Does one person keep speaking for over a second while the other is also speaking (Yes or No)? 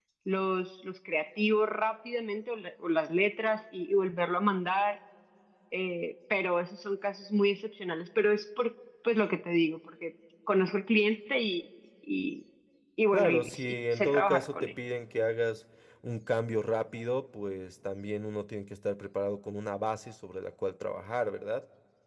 Yes